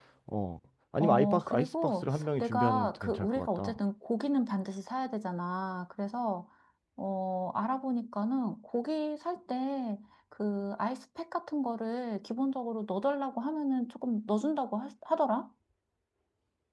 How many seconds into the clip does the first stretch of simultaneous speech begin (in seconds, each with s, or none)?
1.0 s